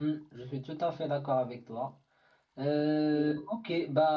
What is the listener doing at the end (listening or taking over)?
listening